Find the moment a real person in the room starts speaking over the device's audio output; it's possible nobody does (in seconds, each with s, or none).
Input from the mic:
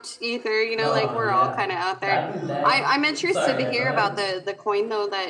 0.8 s